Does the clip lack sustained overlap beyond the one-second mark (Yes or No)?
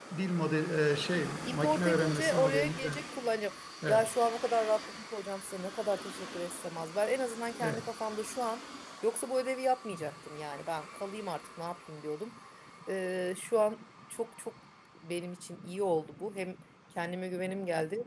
No